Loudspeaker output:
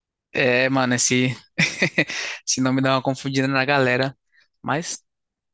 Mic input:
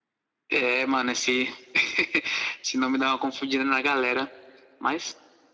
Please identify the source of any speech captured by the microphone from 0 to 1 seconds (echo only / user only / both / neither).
echo only